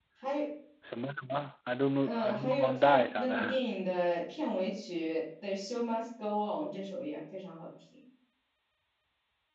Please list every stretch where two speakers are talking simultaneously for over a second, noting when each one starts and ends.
2.0-3.6

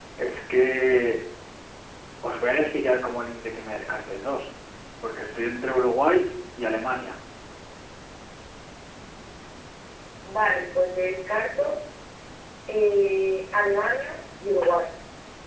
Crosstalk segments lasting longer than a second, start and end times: none

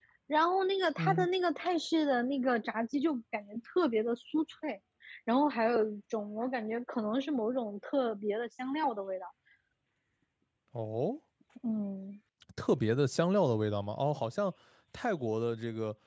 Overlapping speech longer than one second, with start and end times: none

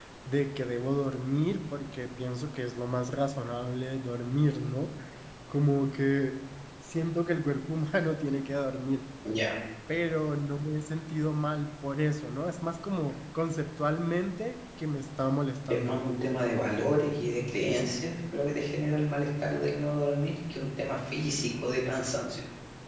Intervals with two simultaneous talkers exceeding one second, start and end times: none

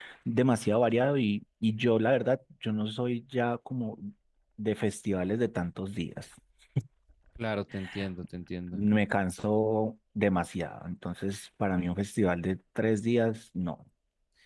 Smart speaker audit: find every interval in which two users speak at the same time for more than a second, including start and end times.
none

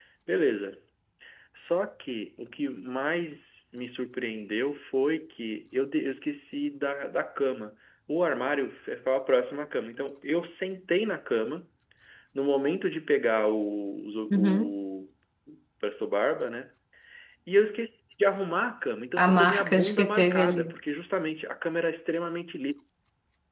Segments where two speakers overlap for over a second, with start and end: 19.2-20.6

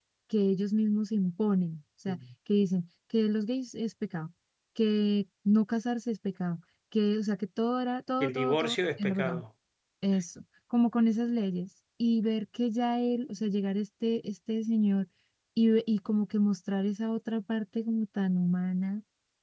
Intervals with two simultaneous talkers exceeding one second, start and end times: 8.2-9.4

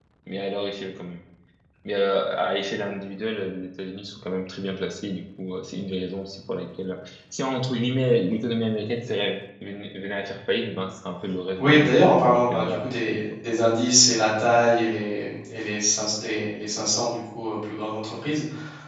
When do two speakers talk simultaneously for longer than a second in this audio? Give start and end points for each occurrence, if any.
11.6-13.2

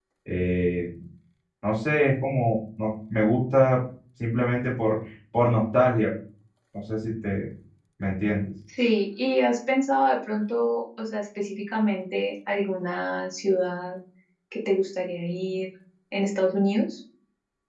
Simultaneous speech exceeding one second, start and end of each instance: none

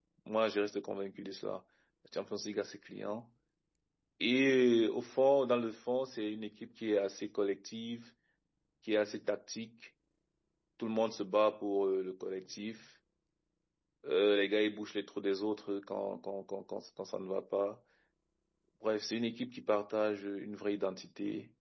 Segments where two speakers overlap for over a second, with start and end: none

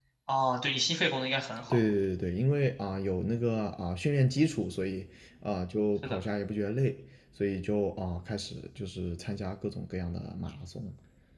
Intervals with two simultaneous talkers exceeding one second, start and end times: none

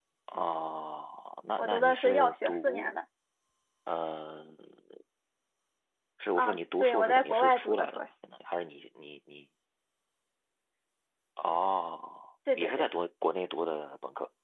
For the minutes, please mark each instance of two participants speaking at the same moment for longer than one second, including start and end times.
1.6-3.0, 6.3-8.1

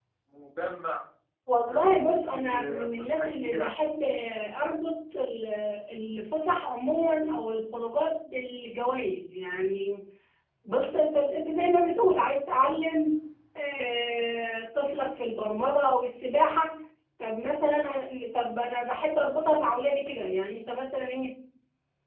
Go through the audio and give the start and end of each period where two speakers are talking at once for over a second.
1.6-3.7

